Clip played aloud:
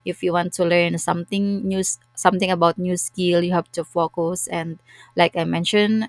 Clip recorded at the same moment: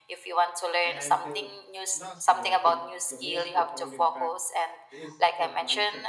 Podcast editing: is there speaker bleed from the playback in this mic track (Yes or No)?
Yes